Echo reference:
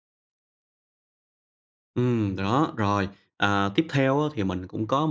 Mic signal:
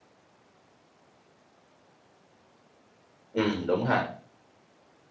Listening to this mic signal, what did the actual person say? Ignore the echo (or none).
Ừm, đúng ha.